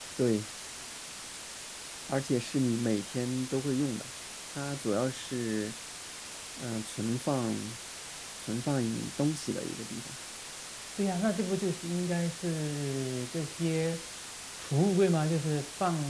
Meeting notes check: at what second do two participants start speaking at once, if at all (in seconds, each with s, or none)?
none